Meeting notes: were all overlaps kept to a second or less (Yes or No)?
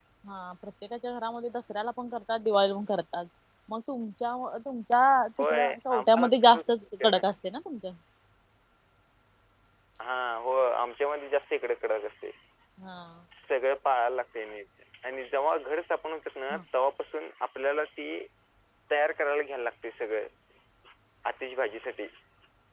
No